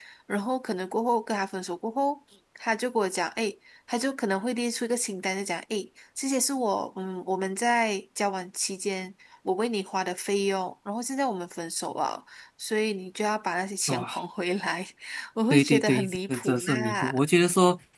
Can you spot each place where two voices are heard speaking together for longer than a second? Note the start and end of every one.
15.5-17.1

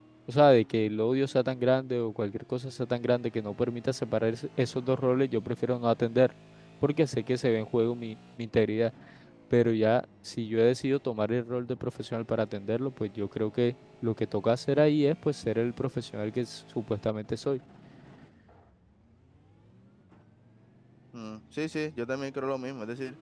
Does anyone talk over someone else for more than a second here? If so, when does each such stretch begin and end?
none

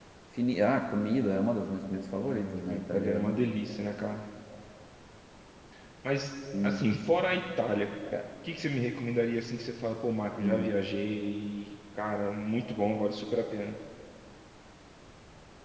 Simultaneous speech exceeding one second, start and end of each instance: 2.3-3.5

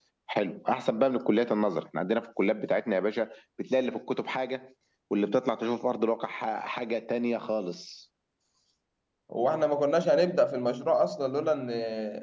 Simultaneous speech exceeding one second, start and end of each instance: none

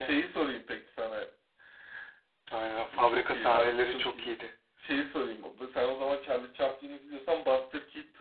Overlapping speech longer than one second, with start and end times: 2.9-4.3

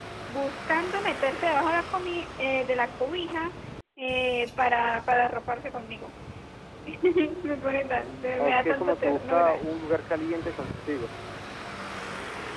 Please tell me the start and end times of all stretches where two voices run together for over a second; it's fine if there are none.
8.4-9.6

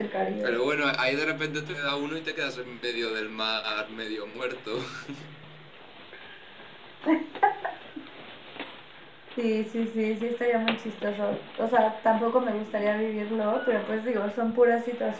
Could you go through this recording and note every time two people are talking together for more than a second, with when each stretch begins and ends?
none

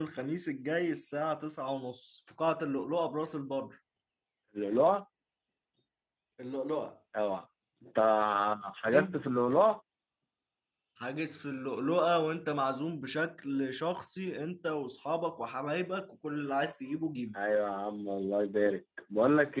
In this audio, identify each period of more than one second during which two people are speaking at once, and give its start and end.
none

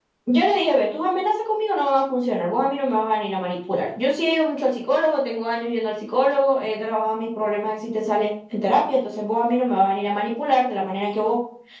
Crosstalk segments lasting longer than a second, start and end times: none

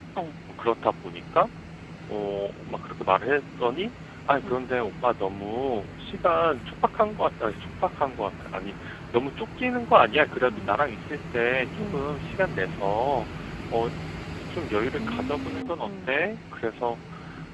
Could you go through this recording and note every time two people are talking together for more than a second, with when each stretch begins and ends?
15.0-16.2

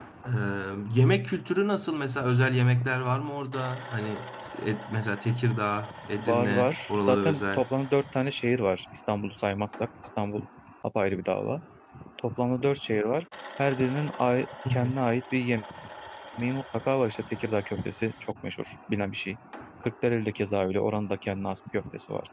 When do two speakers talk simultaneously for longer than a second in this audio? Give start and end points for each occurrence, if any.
6.2-7.6

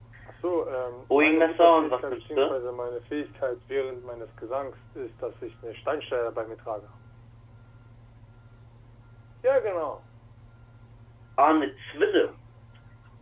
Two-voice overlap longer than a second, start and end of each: 1.1-2.6

